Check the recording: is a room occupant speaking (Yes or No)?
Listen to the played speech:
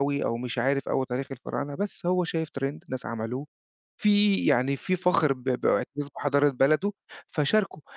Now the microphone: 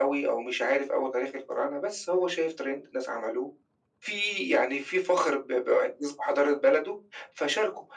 No